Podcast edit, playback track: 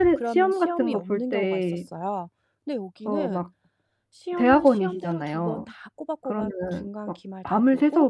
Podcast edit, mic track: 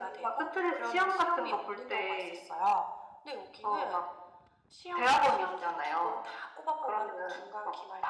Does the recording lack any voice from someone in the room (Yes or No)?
Yes